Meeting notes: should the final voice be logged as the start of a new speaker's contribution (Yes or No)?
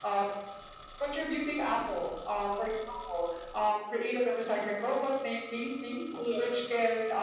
No